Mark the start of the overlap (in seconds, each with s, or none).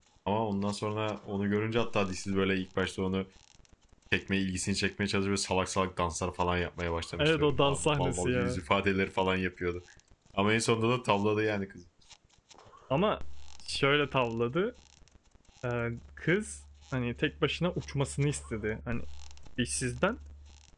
7.2 s